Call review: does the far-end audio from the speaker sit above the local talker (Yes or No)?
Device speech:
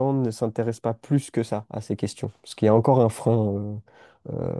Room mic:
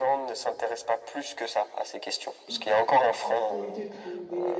Yes